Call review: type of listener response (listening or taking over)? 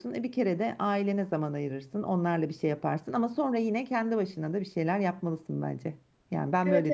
taking over